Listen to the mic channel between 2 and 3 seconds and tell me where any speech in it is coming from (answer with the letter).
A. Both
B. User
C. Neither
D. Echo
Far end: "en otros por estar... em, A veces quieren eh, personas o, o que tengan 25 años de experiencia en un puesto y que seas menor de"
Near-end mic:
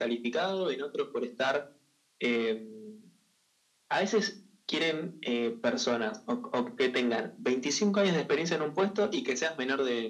D